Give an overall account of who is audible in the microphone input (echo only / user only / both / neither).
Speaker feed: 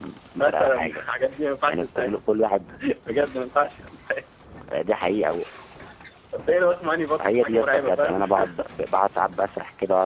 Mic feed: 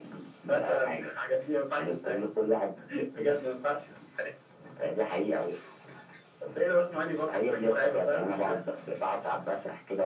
echo only